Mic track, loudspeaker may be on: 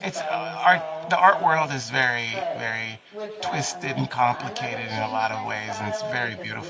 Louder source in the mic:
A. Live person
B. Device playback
A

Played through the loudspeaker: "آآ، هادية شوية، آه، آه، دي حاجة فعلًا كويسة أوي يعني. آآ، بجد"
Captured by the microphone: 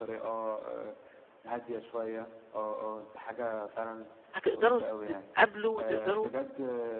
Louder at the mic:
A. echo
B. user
B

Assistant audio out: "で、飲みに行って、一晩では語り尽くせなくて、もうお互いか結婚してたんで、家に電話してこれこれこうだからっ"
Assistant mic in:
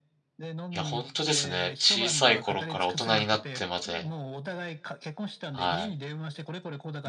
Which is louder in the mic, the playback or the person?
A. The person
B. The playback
A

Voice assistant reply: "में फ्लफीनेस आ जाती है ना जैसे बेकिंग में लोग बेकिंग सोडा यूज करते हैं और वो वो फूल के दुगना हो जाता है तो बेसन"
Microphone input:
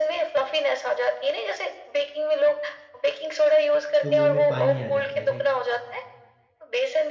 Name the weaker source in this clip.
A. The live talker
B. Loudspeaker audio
A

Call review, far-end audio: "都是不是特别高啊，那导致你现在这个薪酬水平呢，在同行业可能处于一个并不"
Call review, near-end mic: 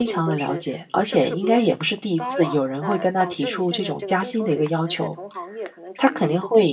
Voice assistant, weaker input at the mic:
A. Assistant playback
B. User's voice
A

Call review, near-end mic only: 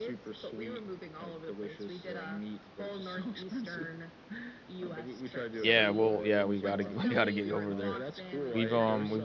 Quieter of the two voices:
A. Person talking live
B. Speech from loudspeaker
B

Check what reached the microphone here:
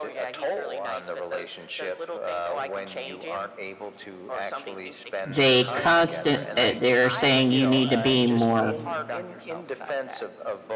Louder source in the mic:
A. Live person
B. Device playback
A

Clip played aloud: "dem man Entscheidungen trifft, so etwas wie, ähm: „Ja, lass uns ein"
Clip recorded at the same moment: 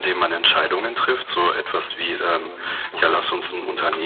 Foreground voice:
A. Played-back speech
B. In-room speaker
A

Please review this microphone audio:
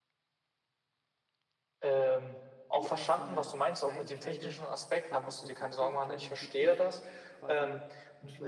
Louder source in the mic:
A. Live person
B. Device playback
B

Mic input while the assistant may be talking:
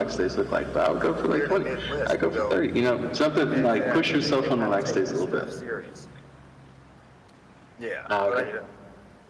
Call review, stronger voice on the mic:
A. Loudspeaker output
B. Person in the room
A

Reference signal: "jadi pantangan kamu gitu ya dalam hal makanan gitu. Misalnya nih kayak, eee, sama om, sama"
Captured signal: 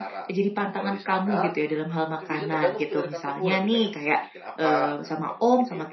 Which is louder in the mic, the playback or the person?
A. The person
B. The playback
B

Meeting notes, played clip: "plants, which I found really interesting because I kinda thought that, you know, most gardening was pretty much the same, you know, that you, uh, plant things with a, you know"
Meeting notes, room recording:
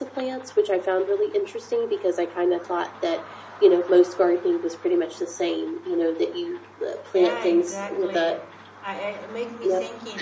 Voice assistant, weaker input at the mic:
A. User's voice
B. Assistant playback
A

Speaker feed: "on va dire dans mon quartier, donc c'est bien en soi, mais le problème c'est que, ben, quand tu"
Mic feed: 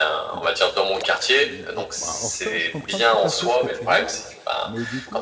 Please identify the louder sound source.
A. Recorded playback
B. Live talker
A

